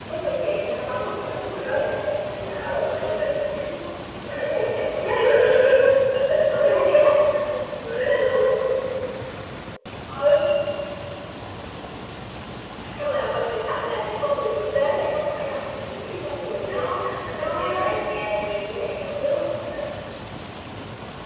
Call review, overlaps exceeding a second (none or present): present